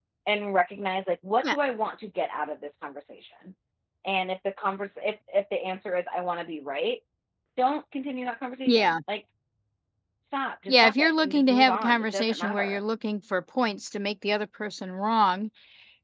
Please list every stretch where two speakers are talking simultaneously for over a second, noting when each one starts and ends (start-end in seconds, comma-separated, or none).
10.7-12.8